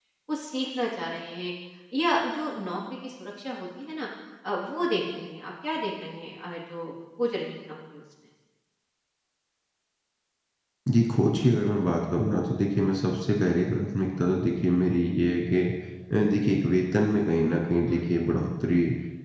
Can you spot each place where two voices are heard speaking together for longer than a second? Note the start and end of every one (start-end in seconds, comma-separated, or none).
none